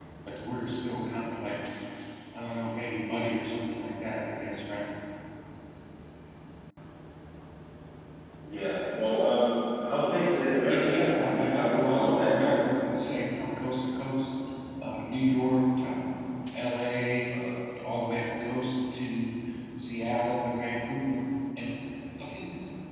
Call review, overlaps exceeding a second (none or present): present